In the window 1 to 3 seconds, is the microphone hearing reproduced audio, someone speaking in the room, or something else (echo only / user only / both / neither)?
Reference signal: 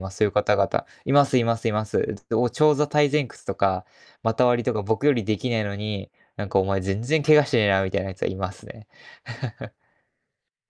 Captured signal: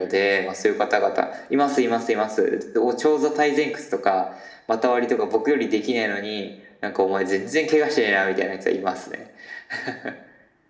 echo only